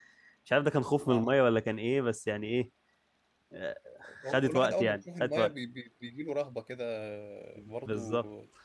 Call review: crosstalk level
present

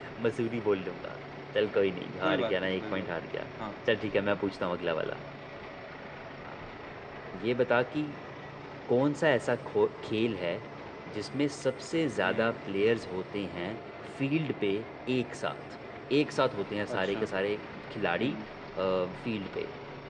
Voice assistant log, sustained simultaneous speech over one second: present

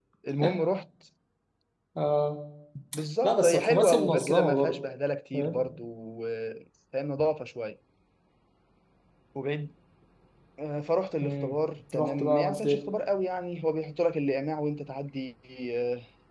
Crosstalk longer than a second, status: present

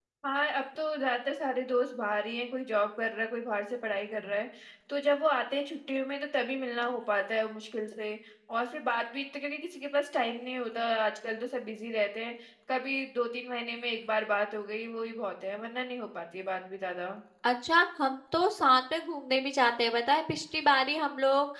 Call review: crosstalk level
none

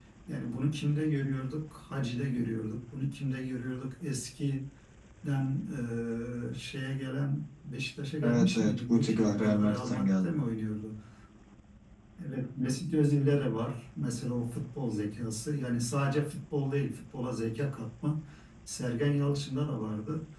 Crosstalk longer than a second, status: present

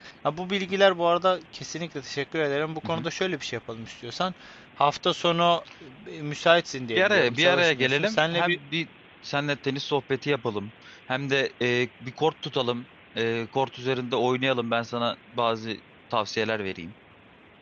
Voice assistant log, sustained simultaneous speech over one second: present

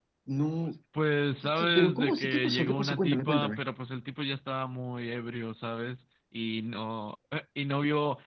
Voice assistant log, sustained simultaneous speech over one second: present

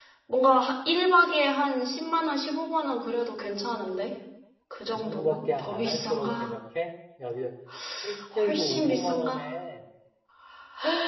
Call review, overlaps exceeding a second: present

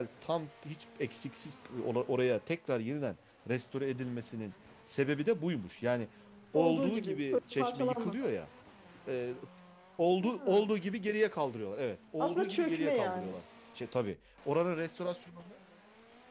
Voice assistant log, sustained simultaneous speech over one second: present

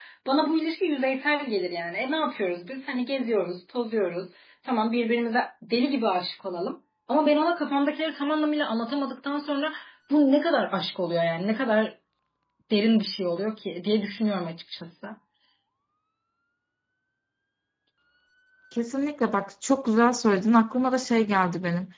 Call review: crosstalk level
none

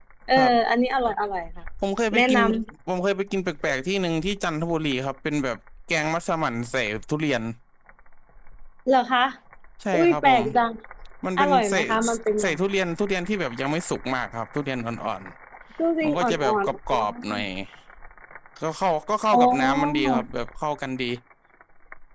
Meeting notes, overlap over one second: present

